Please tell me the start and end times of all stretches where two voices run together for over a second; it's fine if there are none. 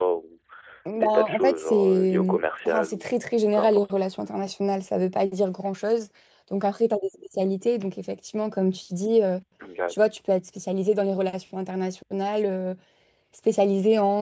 1.0-3.2

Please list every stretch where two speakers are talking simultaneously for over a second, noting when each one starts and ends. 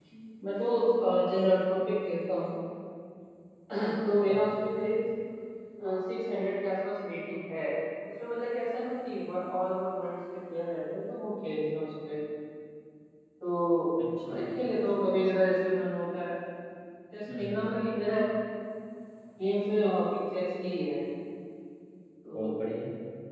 none

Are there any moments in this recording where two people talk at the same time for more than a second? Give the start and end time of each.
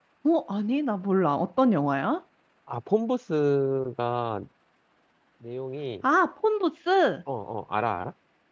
none

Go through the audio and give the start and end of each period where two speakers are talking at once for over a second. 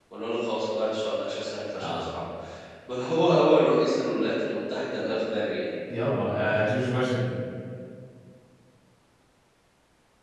none

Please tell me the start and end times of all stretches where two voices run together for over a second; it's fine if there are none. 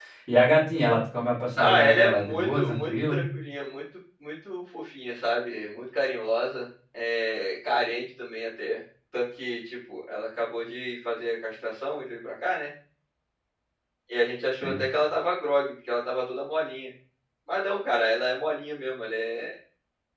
1.6-3.2

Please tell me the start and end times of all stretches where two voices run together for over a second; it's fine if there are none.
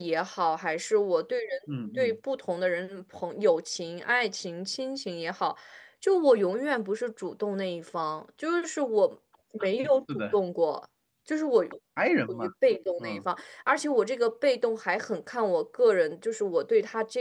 none

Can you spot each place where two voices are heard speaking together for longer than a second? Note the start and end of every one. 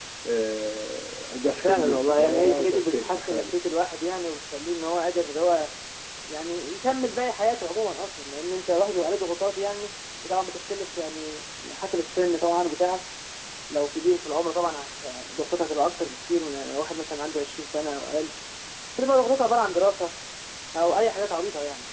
1.6-3.5

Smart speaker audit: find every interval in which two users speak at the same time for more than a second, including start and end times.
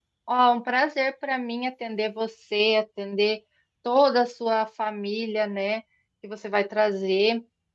none

